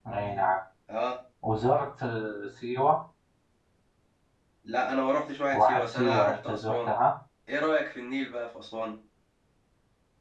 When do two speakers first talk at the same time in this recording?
6 s

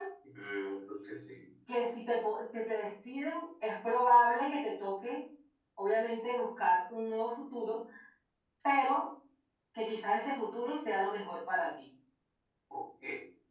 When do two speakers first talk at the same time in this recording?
none

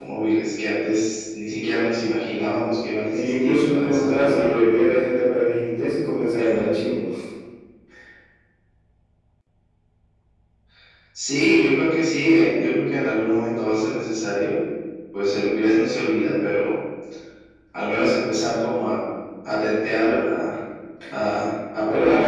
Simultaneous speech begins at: 3 s

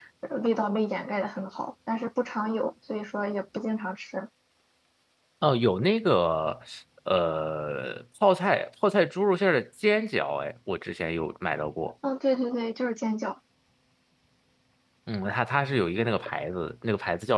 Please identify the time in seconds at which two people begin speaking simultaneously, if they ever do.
none

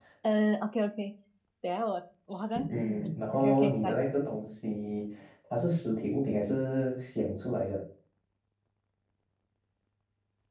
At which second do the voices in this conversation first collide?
3 s

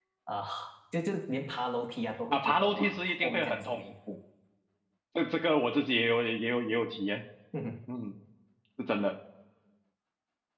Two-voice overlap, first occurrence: 2 s

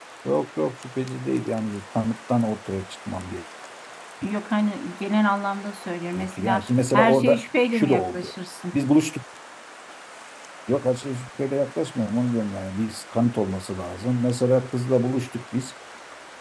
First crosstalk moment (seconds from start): 6 s

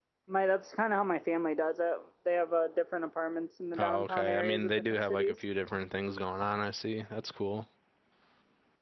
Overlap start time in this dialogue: 4 s

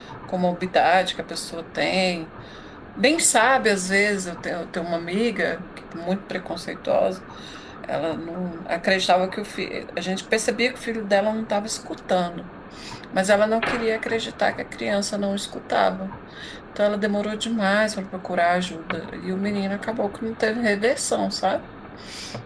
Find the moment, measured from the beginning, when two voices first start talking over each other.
none

